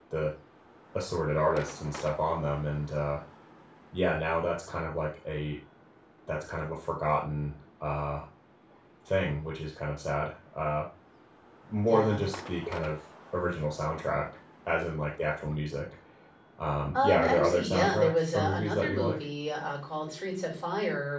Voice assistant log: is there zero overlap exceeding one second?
No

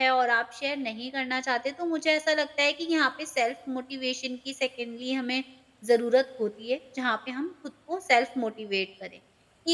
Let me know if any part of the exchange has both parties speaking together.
No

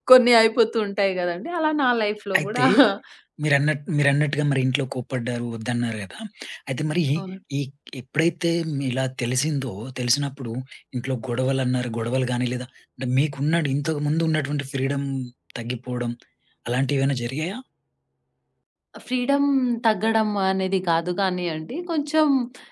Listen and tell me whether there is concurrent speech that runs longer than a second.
No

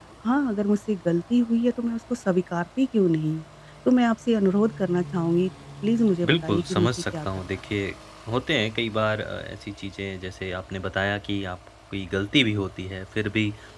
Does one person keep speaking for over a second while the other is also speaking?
Yes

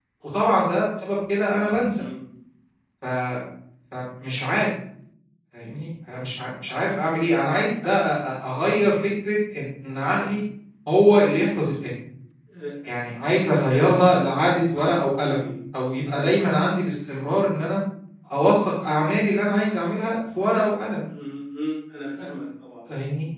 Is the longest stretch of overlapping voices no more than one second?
Yes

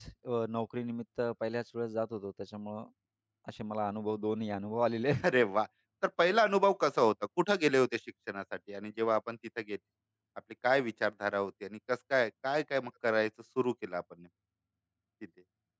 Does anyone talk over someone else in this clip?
No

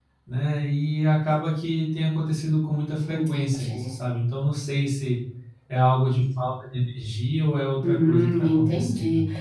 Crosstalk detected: Yes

